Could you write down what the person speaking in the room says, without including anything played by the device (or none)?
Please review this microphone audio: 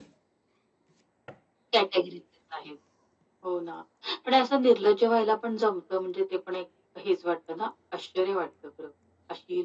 none